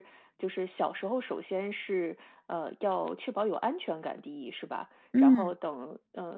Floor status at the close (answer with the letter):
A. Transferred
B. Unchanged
B